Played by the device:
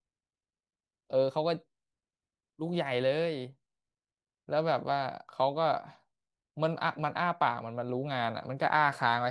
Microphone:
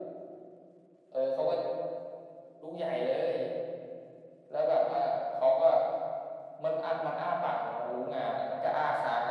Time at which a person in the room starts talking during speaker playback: none

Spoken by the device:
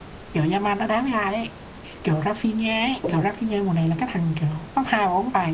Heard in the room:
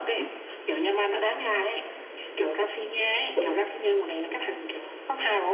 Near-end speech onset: none

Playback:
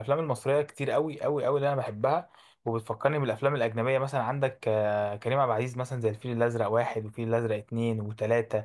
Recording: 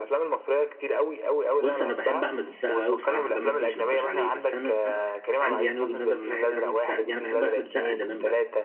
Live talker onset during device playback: 1.6 s

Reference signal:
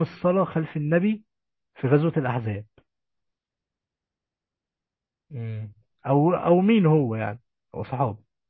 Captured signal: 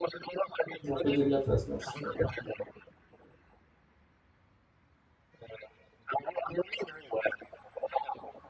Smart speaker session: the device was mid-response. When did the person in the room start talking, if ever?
0.8 s

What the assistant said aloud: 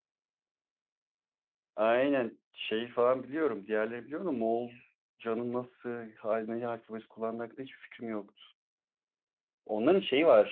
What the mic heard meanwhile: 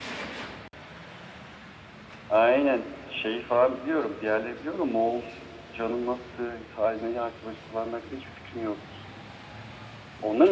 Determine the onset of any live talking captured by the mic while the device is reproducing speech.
none

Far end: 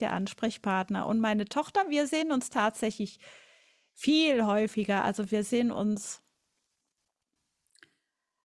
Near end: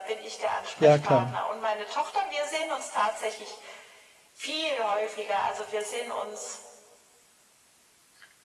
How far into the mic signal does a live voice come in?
0.8 s

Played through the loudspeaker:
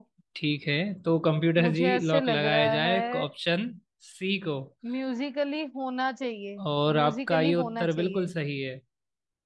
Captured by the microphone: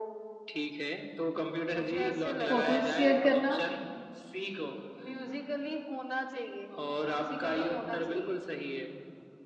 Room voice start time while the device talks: 2.5 s

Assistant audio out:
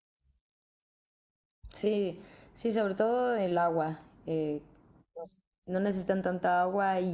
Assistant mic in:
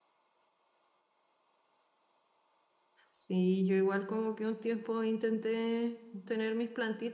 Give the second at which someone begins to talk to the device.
3.1 s

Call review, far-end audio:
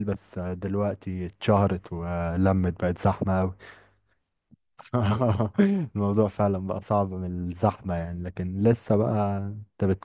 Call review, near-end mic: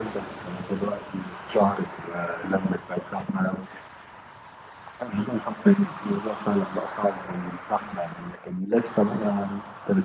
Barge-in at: none

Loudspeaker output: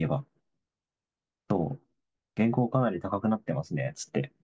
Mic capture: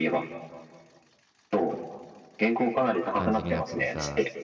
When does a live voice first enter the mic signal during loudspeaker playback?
3.1 s

